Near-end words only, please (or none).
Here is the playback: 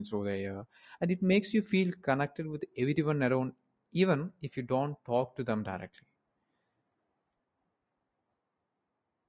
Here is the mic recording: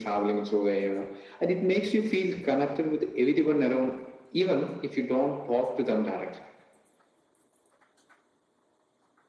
none